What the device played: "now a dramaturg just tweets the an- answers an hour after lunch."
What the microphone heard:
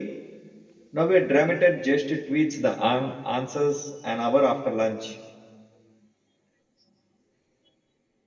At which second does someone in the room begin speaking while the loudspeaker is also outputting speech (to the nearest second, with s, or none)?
none